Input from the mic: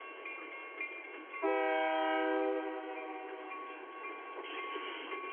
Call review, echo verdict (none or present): none